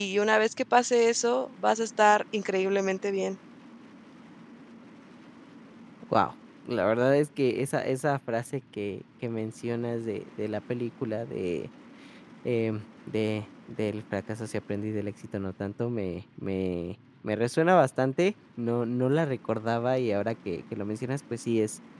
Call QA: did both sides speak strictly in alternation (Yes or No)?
Yes